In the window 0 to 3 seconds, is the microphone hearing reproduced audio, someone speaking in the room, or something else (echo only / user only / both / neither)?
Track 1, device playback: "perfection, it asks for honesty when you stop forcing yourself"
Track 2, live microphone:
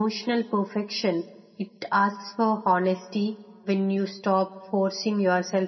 echo only